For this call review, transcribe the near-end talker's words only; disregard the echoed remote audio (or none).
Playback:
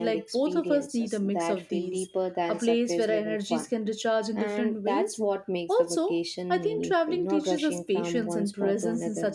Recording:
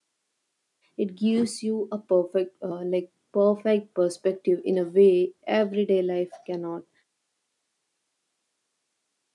It gives you a perfect, uh, like, perfect perspective in a way everyday life cannot.